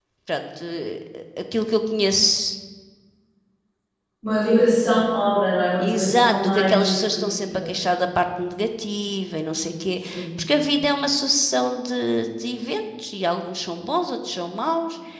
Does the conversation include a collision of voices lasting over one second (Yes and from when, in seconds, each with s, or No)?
Yes, from 5.8 s